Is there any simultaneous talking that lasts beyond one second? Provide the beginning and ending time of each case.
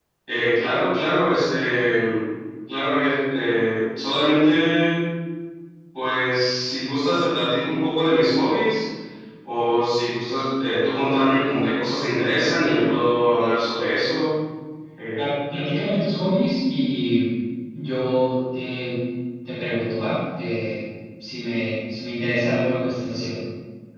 none

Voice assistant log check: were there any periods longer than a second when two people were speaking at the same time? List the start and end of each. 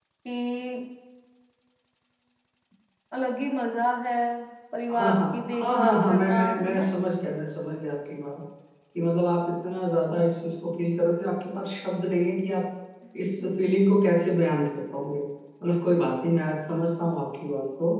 4.9-6.9

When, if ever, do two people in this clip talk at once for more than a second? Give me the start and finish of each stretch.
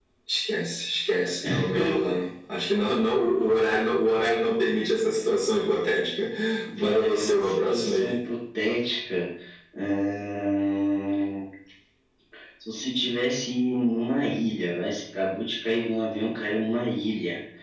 6.8-8.2

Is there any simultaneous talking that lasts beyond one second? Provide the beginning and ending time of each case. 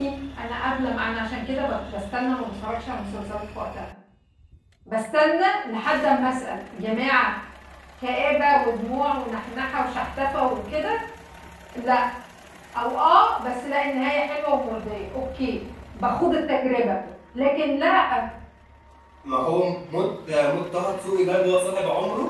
none

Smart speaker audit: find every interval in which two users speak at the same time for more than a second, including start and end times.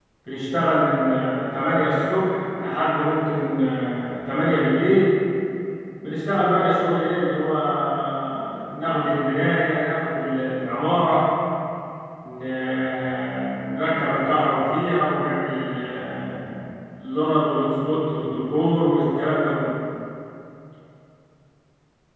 none

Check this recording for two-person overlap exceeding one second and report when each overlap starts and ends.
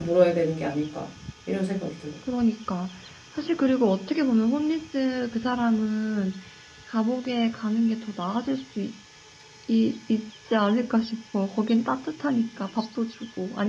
none

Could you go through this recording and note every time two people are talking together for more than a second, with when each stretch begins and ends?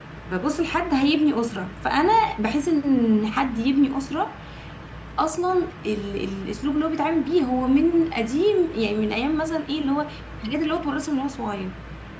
none

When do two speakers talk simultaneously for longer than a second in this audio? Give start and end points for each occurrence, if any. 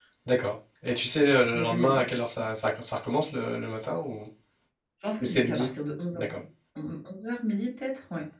none

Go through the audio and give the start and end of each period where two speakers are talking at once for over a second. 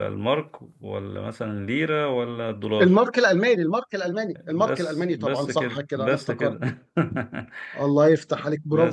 4.5-6.5

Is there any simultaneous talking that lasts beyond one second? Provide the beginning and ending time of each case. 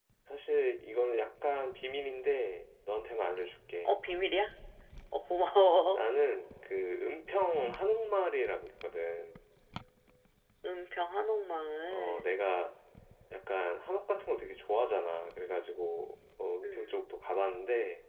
none

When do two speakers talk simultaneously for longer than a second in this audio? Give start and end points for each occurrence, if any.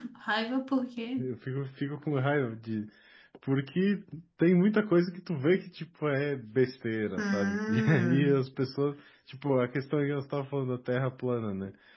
7.2-8.4

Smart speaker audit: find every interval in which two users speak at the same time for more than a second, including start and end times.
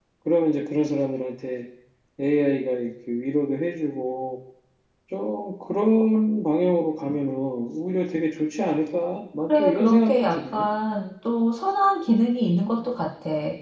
9.4-10.7

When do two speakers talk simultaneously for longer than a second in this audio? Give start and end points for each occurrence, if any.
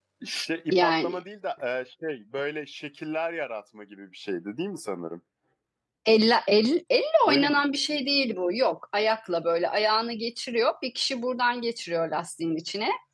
none

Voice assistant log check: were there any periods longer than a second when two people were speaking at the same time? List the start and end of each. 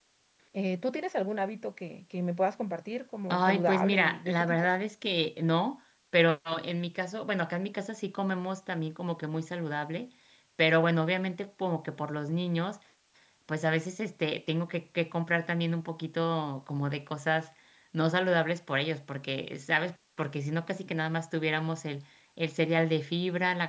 3.3-4.7

